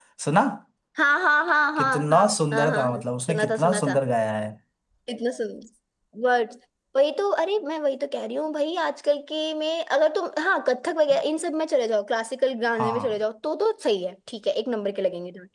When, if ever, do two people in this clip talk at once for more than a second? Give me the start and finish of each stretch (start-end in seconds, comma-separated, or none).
1.8-4.0